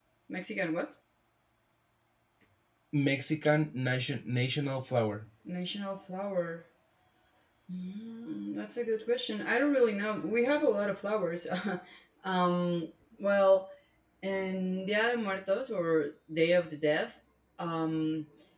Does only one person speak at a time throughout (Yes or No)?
Yes